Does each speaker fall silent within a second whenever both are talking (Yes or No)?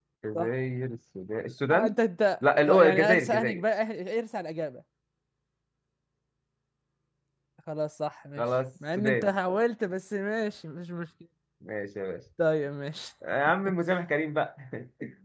No